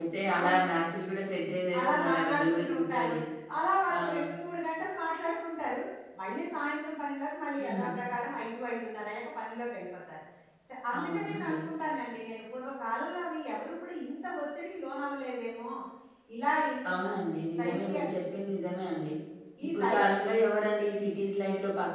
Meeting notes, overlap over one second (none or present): present